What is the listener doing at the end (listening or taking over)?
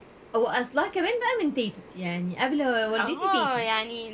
taking over